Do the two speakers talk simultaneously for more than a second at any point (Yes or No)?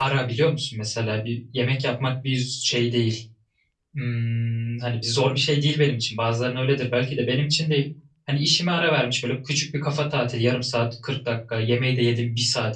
No